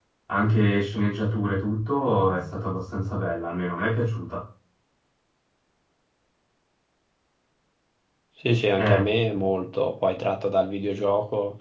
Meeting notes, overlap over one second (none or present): none